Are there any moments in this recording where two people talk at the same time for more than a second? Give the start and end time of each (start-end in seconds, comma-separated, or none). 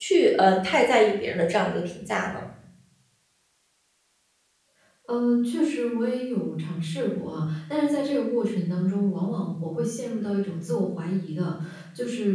none